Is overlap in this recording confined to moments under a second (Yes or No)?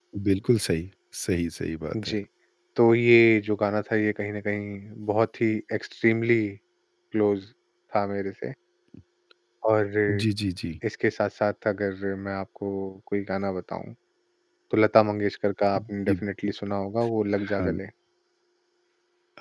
Yes